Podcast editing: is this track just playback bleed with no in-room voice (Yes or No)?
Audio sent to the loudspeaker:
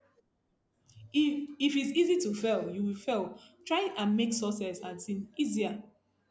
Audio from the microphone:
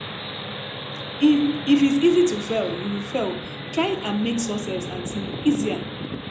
Yes